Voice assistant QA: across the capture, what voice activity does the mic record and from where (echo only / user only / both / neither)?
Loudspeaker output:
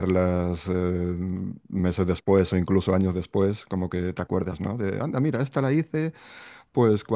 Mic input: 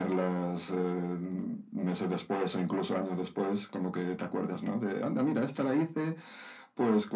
echo only